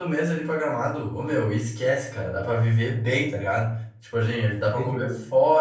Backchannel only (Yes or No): Yes